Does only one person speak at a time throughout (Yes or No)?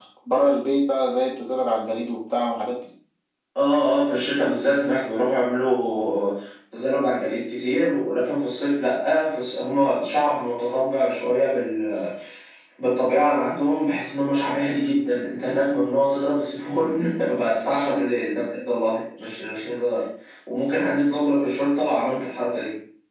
Yes